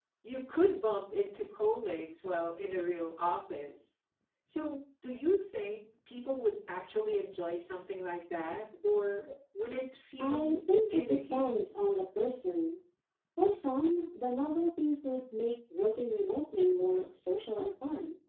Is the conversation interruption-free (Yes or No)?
No